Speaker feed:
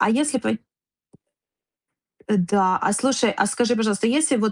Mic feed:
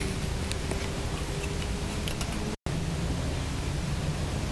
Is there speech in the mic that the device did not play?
No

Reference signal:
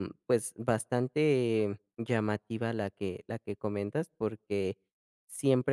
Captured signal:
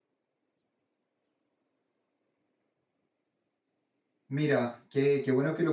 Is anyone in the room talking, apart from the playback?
Yes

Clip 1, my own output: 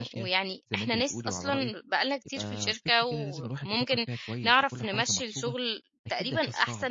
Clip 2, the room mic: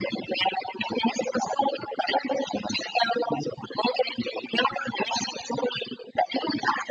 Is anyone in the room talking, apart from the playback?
No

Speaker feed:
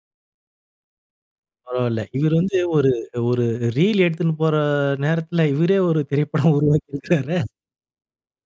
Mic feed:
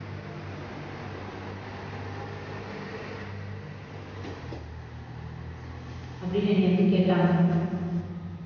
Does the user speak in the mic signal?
Yes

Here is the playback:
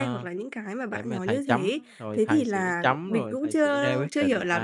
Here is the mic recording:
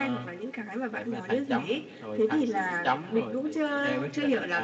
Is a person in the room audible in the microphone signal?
No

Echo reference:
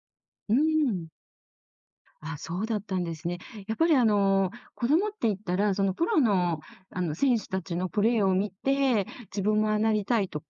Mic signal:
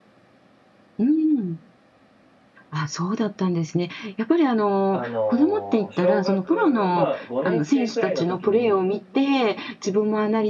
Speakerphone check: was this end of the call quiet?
No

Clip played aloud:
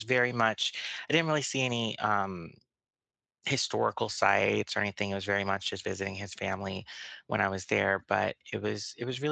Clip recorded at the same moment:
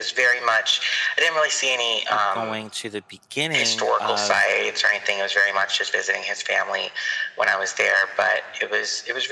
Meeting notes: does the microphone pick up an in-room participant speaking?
Yes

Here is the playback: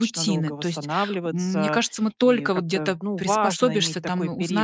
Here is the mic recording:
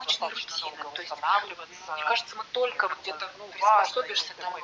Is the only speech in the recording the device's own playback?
Yes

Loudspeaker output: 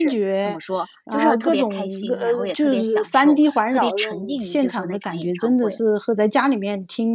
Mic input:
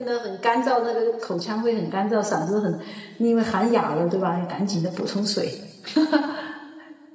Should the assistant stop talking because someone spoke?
Yes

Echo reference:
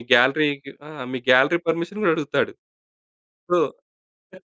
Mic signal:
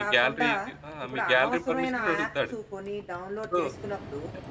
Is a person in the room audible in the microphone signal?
Yes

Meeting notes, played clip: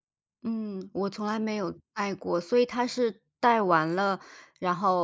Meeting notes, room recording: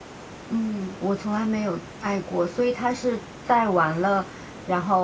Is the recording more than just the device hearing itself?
No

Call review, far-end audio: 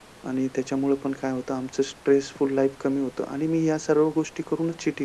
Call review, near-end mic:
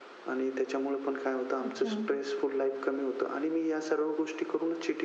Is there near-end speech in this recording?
Yes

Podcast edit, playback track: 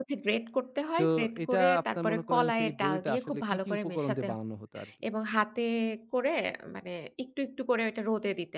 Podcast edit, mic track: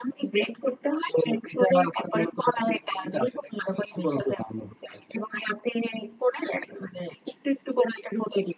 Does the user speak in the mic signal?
No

